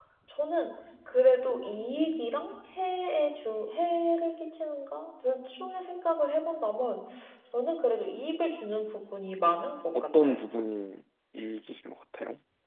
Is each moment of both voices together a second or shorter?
Yes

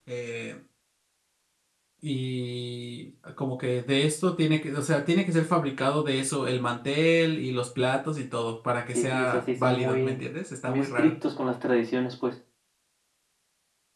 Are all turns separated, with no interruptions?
No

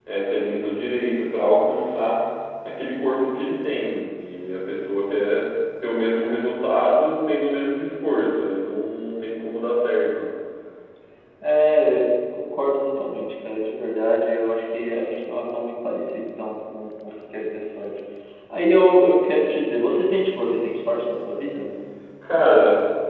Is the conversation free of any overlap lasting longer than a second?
Yes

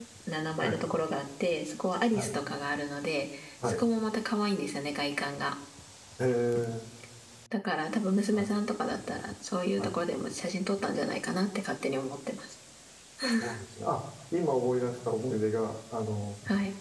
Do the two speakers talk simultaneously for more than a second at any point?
No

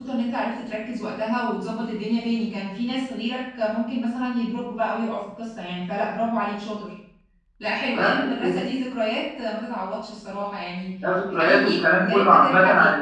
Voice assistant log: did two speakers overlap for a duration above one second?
Yes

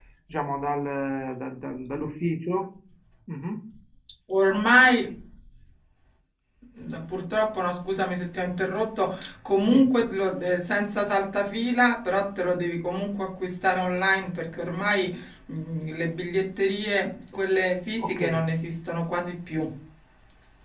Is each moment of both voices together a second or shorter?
Yes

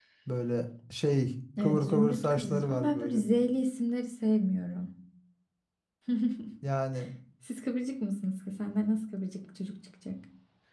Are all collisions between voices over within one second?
No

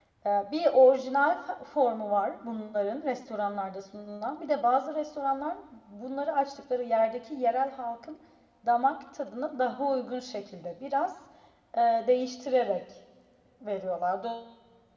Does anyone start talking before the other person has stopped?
No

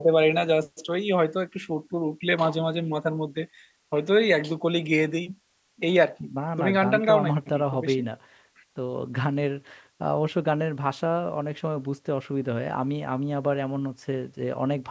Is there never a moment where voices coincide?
No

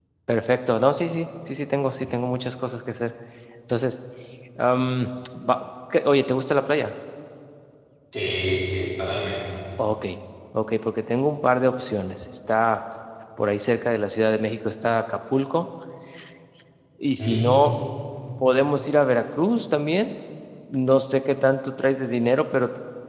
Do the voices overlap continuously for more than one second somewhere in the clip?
No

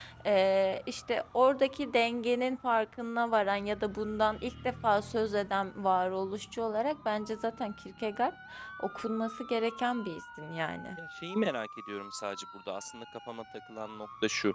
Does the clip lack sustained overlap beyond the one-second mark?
Yes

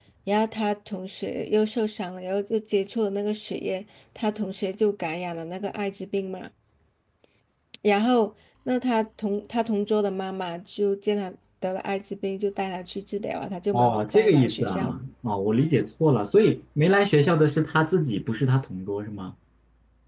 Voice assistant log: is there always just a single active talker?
No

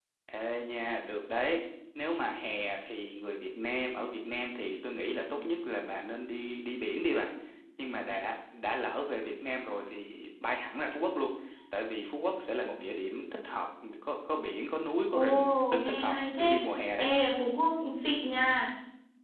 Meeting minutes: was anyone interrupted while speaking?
Yes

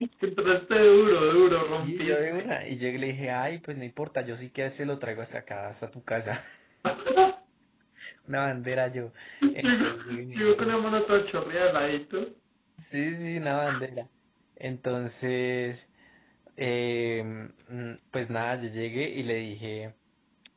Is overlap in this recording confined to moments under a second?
No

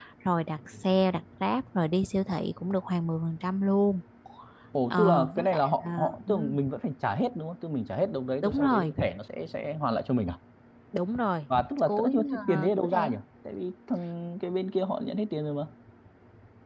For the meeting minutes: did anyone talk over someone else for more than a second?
Yes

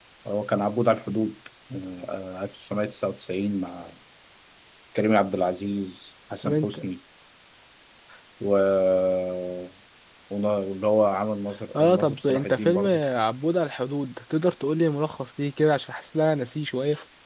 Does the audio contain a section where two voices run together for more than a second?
Yes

